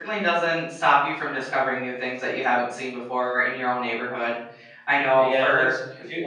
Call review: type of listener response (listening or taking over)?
taking over